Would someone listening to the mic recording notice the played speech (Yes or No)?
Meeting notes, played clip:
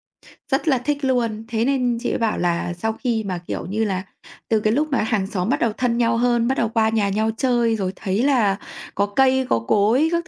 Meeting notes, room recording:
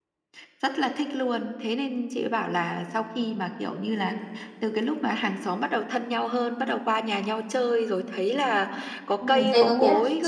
Yes